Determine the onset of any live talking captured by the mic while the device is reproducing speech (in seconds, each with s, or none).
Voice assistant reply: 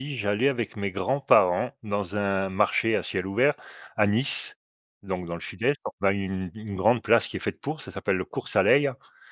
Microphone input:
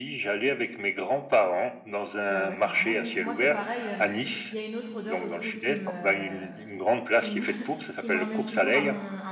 2.3 s